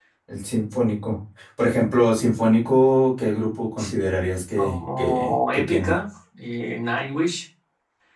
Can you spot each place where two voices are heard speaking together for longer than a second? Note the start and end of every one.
4.6-6.0

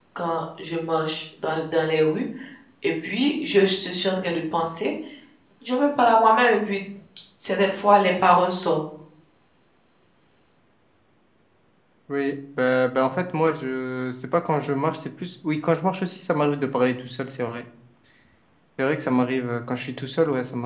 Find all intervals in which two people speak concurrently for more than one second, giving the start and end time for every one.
none

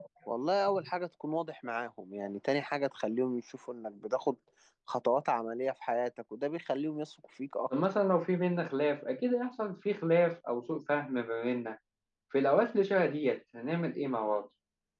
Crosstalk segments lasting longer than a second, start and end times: none

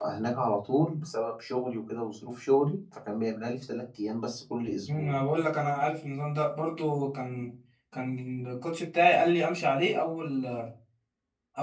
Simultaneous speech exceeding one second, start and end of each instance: none

